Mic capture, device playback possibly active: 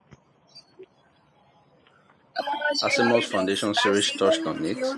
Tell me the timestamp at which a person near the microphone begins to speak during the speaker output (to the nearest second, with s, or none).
3 s